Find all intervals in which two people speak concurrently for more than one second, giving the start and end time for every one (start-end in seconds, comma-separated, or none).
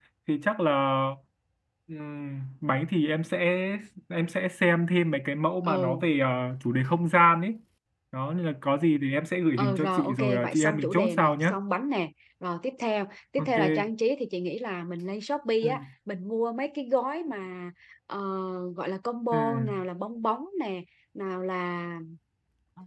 9.6-11.6